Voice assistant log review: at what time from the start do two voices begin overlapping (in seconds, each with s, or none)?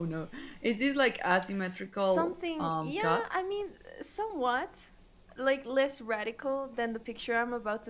2.0 s